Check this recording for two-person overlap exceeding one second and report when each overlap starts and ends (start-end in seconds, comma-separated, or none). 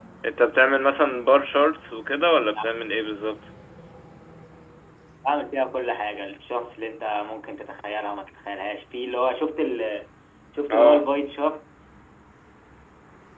none